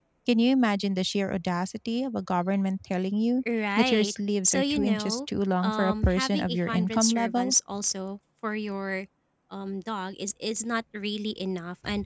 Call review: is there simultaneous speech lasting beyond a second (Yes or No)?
Yes